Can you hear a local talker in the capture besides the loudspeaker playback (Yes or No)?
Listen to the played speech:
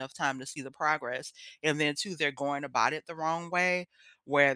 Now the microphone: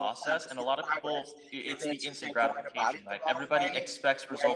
Yes